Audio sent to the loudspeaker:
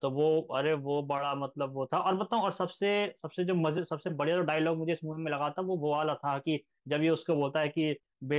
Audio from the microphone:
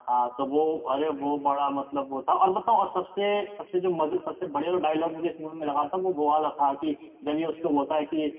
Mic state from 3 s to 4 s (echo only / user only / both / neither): echo only